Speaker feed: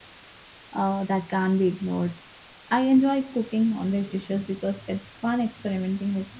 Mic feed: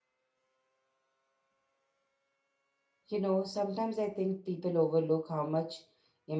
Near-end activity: present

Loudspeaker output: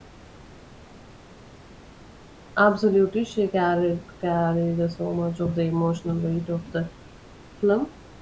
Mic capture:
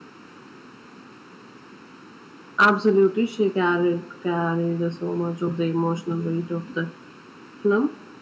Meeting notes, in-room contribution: none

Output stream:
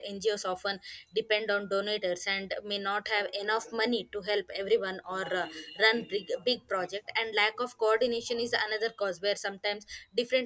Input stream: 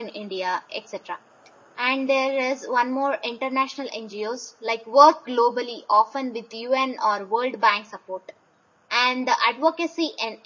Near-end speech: present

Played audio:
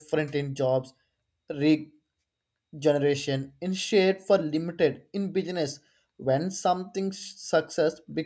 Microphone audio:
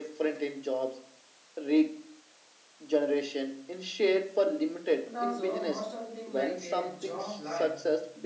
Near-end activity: present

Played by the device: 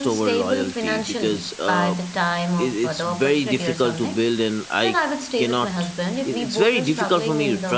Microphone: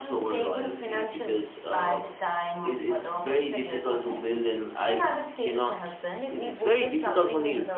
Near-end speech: none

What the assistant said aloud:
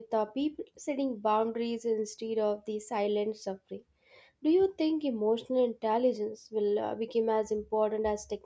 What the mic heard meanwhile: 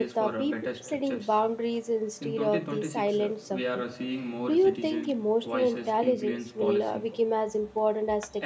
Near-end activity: present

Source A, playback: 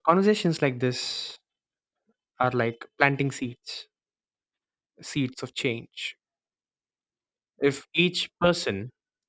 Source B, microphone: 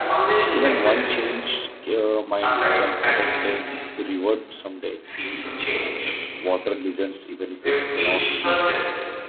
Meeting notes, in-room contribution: present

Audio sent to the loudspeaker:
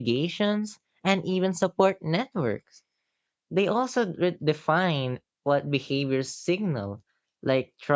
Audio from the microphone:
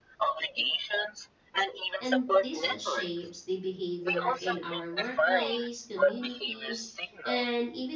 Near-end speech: present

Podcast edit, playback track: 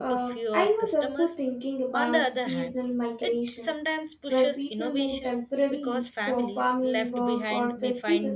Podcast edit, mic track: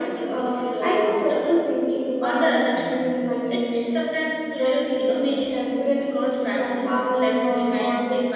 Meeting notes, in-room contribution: none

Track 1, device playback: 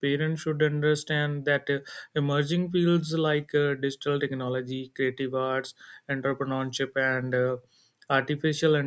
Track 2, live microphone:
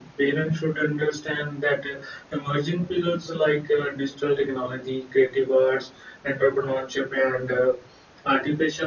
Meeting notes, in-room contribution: none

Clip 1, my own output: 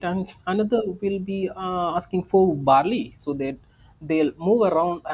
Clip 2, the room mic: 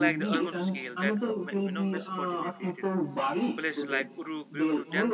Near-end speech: present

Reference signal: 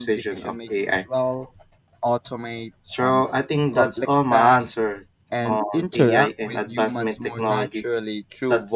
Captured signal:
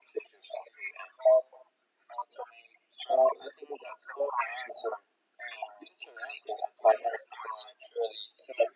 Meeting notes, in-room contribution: none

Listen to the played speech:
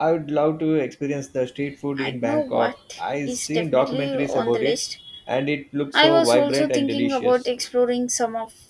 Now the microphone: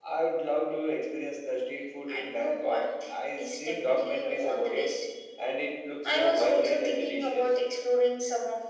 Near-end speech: none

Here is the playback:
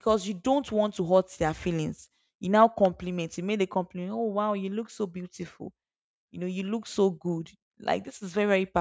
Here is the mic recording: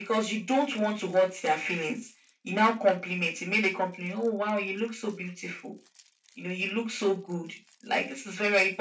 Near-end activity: none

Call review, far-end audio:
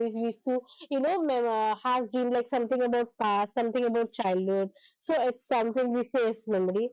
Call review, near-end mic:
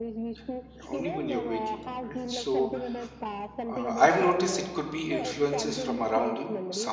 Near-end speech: present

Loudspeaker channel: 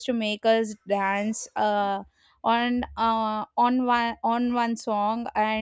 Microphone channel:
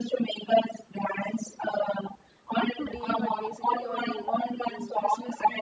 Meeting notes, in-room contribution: present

